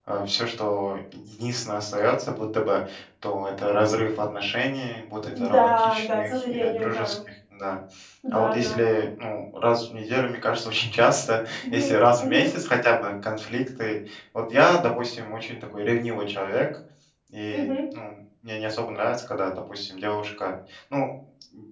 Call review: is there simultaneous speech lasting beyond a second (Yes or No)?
Yes